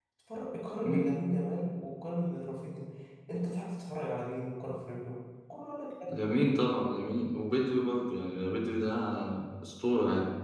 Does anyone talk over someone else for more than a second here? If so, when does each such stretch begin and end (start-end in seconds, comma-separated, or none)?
none